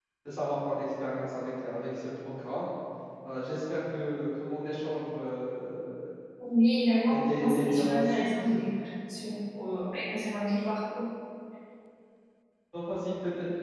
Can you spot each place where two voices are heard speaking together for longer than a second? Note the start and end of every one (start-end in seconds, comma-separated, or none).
7.1-8.3